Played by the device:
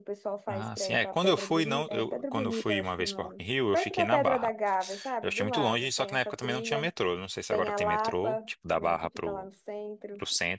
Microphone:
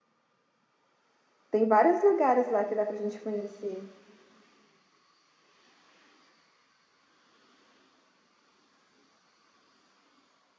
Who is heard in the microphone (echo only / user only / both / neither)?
user only